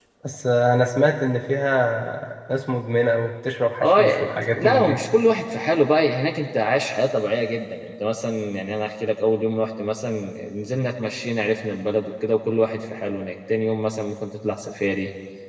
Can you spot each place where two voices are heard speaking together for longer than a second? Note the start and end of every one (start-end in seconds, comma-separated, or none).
3.8-5.0